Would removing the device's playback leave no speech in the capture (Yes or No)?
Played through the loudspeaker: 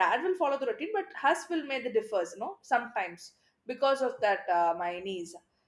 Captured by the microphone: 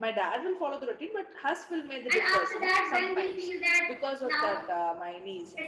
No